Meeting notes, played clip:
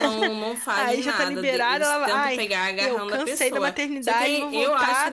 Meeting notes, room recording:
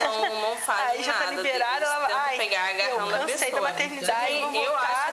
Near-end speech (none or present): present